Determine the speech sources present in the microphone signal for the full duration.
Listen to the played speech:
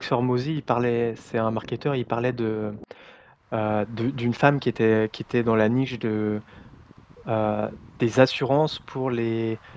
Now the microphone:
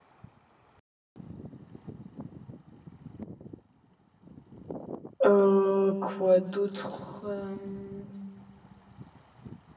user only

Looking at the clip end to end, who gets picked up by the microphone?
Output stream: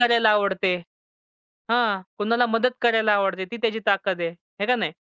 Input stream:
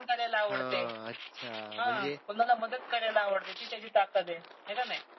both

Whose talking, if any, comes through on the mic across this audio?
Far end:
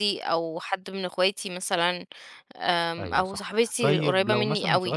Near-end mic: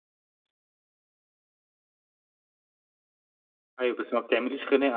user only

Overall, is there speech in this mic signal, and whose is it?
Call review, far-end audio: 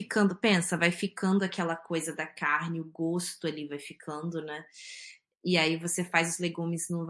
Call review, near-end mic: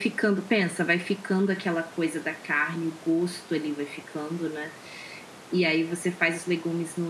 echo only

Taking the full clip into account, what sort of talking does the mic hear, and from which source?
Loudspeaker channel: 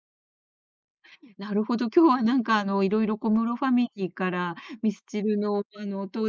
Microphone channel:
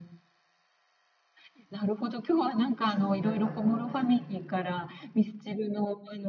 both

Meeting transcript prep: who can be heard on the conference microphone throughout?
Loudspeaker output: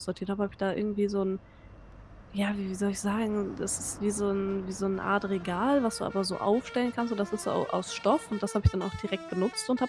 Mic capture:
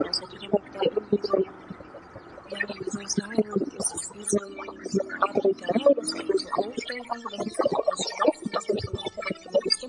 echo only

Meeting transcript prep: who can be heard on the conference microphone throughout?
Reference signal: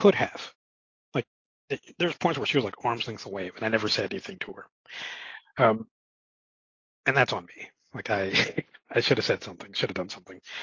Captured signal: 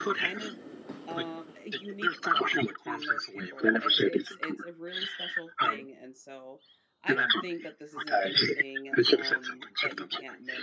both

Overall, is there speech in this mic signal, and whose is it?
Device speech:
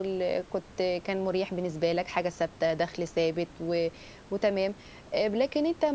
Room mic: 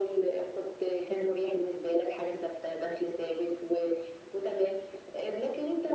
echo only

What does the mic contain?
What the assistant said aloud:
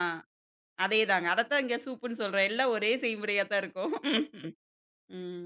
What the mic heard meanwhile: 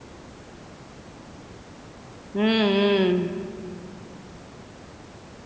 user only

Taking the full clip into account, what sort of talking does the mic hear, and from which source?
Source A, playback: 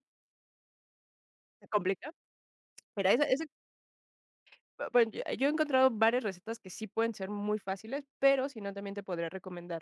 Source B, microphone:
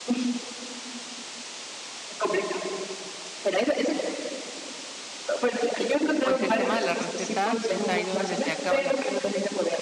both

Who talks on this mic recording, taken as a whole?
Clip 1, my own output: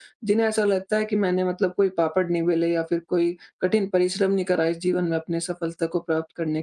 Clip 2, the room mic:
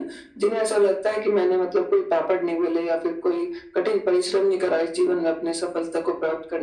echo only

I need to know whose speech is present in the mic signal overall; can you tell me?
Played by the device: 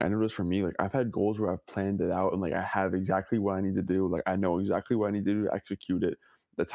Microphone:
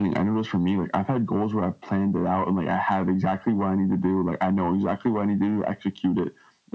echo only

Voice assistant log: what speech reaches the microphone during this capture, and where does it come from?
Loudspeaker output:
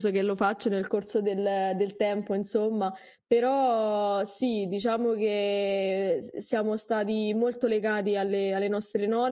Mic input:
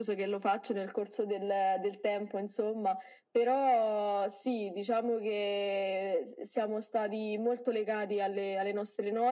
echo only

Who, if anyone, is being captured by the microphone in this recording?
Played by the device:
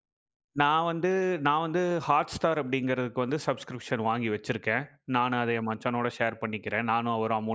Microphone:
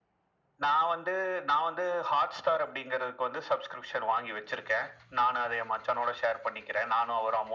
echo only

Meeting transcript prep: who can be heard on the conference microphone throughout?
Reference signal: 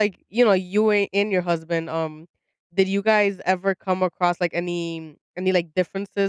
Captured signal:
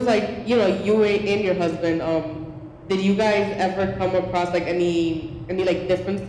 echo only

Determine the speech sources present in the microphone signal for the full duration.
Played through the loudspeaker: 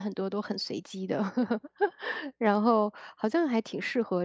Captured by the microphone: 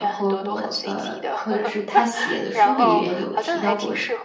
both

